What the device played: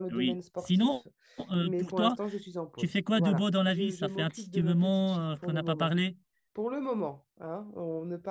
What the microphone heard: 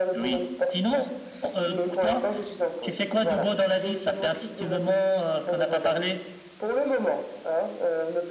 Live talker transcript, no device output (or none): none